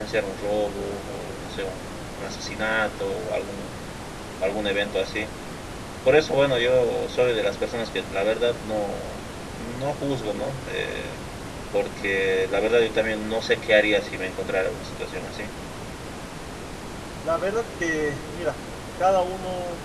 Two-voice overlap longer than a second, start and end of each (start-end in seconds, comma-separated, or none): none